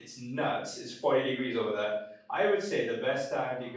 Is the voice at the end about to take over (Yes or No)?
No